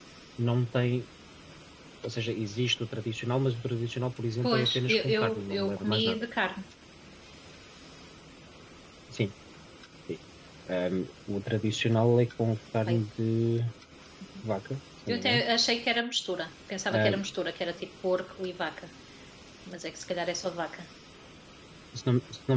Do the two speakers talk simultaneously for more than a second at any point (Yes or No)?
Yes